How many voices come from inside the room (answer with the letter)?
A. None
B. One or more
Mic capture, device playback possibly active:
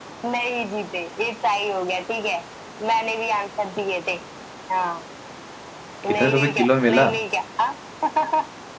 B